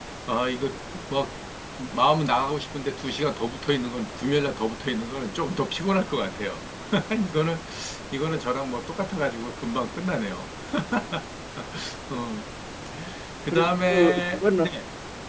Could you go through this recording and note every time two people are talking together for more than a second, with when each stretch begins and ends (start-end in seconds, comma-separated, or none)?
13.5-14.7